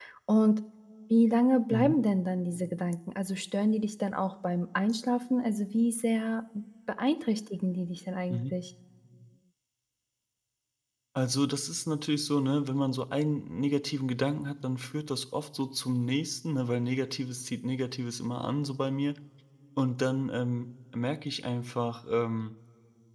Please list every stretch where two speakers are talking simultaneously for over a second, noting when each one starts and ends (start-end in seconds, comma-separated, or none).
none